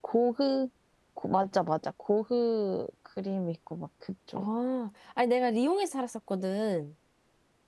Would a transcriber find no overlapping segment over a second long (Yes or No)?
Yes